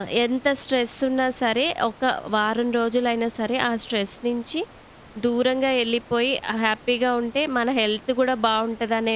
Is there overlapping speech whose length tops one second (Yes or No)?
No